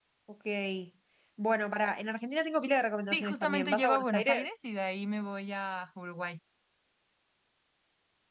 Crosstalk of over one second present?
Yes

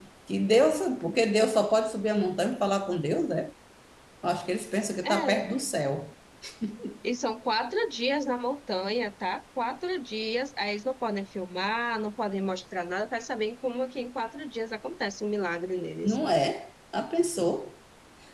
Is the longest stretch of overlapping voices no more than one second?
Yes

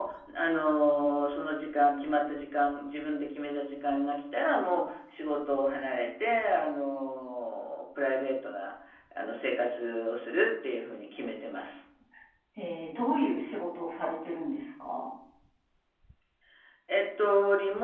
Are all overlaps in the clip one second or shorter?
Yes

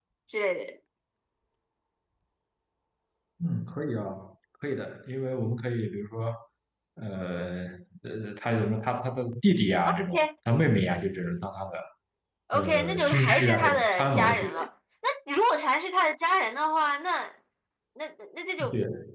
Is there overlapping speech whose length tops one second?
Yes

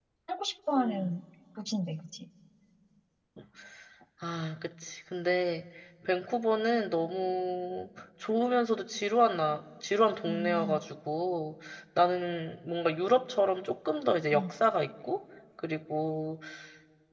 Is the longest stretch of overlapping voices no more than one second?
Yes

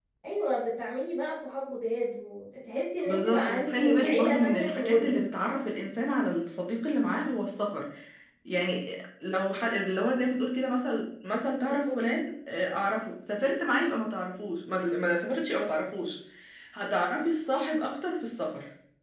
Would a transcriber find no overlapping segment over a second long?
No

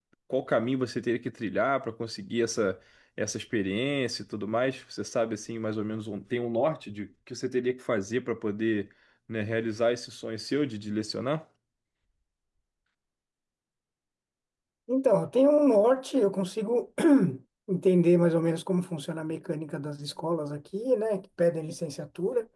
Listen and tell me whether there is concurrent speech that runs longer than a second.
No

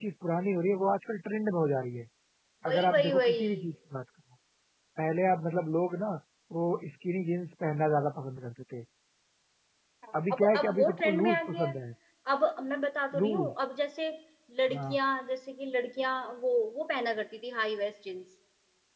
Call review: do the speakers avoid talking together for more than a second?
No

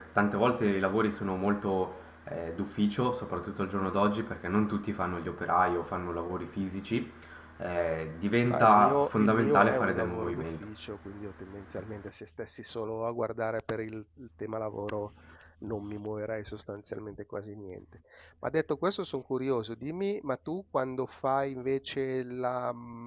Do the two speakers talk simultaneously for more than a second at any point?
Yes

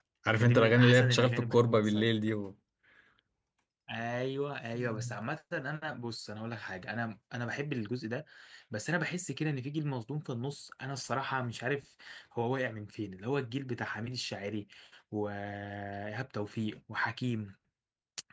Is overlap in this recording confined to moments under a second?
No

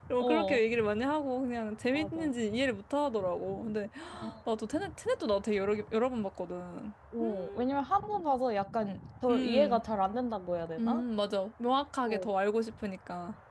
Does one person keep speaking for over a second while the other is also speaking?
No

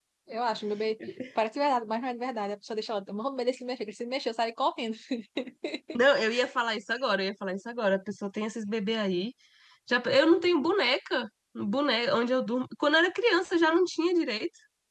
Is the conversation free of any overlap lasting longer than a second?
Yes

